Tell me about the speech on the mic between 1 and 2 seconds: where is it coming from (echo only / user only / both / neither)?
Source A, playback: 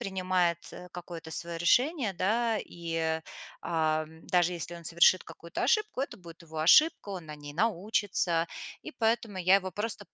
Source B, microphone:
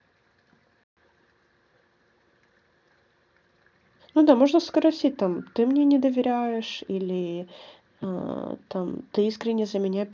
neither